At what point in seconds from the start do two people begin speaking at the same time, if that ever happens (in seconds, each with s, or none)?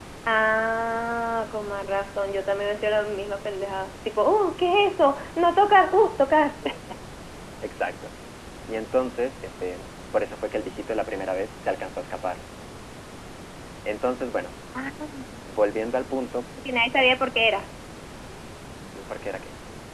none